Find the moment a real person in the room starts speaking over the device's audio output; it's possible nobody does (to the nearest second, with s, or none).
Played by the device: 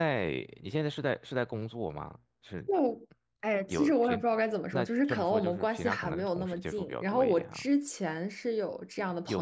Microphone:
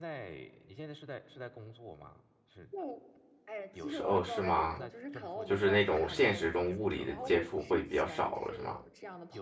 4 s